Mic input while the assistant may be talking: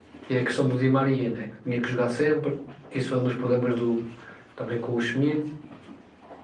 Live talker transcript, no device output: none

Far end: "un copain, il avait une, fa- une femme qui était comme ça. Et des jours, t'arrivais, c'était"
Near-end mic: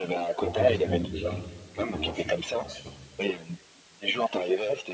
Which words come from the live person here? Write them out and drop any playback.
Bon, quelques semaines déjà, quelques mois, je suis pas sûr.

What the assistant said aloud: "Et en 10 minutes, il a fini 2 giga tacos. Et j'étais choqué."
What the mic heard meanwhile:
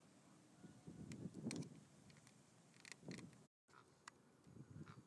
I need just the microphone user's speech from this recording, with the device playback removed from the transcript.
none

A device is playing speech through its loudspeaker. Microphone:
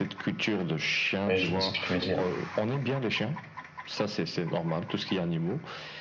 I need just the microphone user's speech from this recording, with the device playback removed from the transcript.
Ouais, je vois ce que tu veux dire.

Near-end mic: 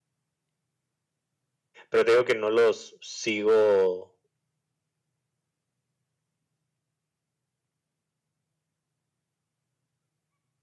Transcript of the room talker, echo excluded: Pero te digo que no los sigo

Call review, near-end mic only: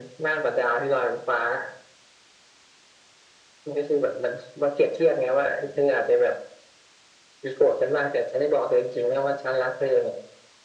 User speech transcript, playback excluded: none

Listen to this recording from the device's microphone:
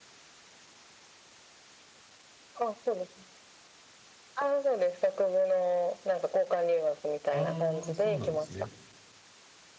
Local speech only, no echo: ああ、そうなんですね。

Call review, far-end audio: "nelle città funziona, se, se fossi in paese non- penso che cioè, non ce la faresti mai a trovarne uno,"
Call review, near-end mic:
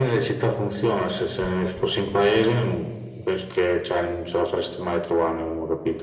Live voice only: none

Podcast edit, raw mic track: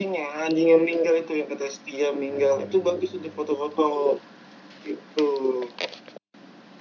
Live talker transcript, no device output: Hmm.

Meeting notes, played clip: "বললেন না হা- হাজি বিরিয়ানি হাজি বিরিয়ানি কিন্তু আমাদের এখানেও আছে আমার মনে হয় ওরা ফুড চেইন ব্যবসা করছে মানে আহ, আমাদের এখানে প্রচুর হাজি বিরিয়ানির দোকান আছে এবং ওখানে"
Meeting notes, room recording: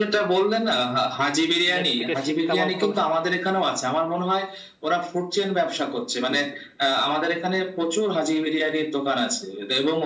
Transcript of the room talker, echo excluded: নেক্সট থেকে শিক কাবাবটা

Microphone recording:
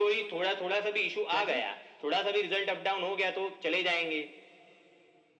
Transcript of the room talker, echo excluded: क्या जी

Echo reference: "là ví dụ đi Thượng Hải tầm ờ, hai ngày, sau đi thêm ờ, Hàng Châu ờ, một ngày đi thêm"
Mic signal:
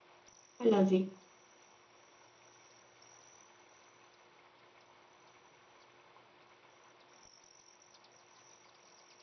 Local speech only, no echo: hay là gì

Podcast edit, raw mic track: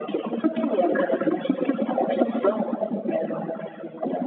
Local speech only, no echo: none

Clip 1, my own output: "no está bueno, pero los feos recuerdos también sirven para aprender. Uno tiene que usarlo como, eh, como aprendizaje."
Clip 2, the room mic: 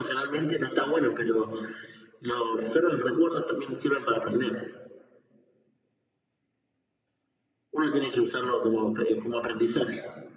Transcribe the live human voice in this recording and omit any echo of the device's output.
none

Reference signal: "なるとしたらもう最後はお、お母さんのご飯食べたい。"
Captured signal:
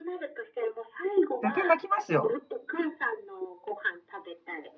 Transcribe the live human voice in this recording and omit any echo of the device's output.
絶対泣きますよ。

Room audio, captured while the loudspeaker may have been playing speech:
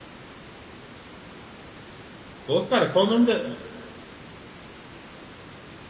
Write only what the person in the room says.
Pô, cara, qual o nome da...

